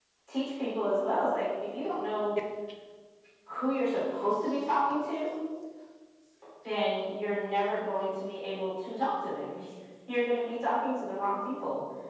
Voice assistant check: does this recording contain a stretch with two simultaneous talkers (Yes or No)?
No